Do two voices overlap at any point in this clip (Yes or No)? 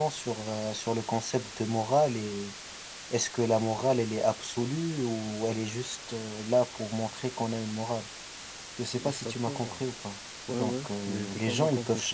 Yes